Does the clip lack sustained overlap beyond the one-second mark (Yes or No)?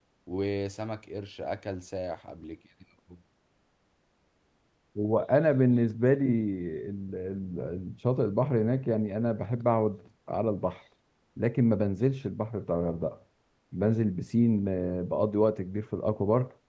Yes